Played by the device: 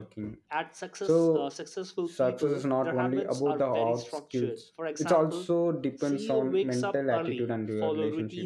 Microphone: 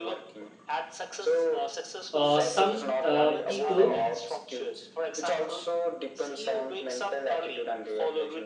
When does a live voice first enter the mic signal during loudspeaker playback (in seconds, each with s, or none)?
2.1 s